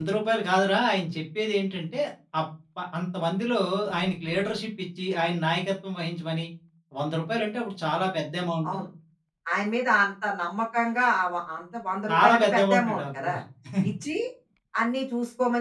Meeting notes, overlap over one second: present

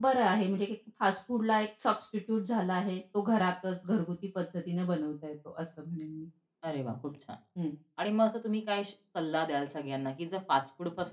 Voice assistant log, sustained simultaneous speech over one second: none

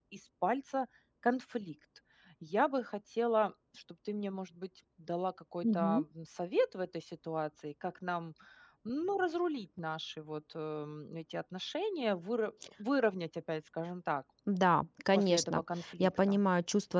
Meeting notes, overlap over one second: present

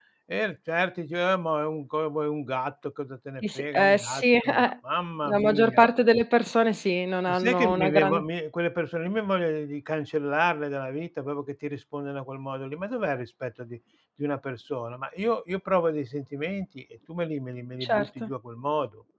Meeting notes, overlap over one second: present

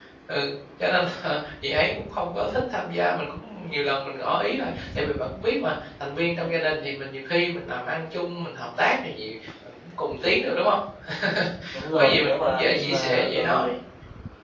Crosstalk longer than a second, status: present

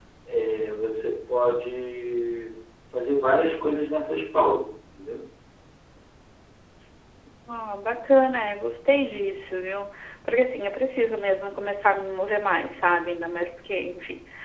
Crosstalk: none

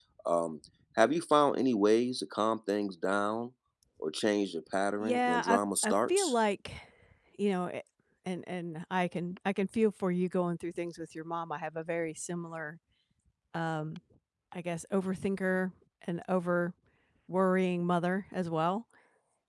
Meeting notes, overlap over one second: present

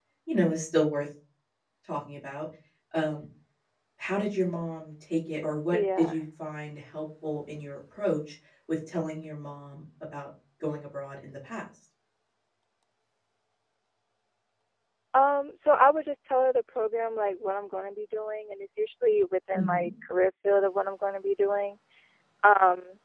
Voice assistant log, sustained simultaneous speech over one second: none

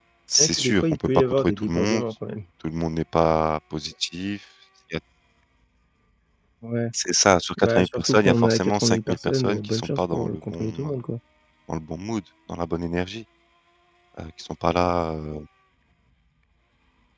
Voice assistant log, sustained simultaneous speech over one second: present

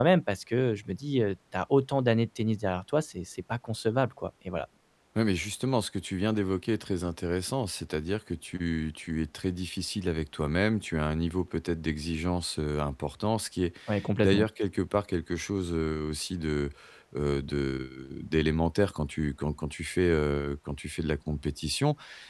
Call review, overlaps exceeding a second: none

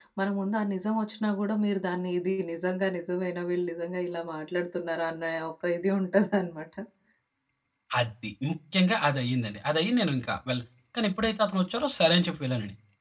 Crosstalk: none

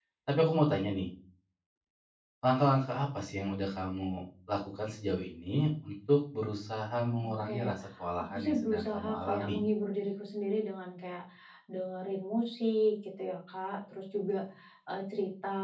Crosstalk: present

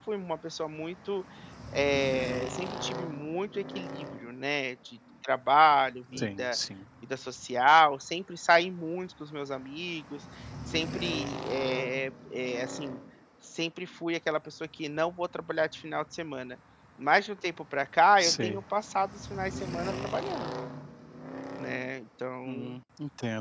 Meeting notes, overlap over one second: none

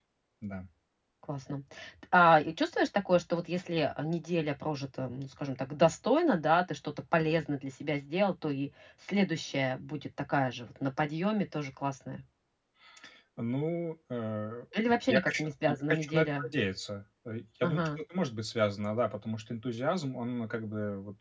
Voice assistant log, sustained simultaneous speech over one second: present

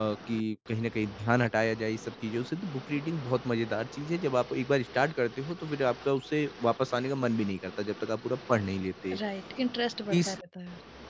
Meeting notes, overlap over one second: none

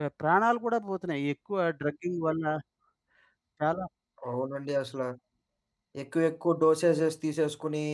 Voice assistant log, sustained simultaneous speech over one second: none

